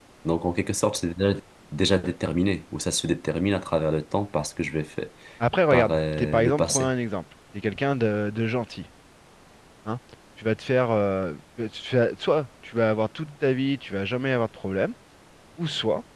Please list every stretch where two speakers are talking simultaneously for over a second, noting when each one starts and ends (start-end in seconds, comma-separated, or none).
5.7-6.9